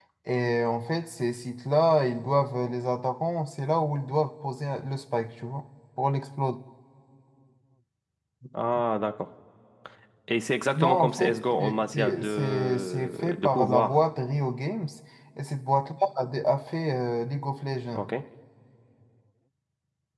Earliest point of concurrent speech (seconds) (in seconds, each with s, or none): 10.8 s